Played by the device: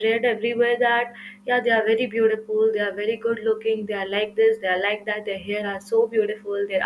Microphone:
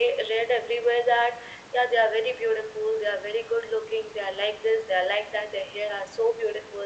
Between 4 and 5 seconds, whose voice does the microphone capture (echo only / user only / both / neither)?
echo only